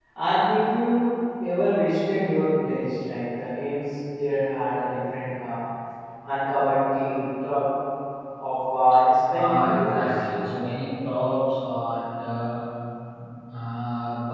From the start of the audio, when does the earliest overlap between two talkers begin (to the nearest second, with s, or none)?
9 s